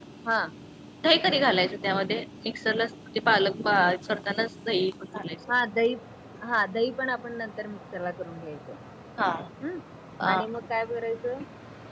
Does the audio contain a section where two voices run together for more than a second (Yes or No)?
No